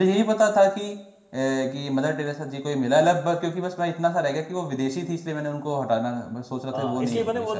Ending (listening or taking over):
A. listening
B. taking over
B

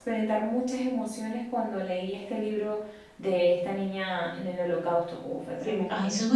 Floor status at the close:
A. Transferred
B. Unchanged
A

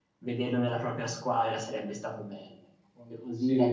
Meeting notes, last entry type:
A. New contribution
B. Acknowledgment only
B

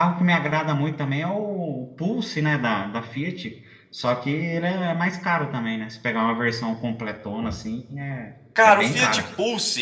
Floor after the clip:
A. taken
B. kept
A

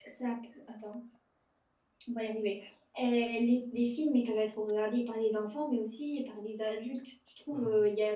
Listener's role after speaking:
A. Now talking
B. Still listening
B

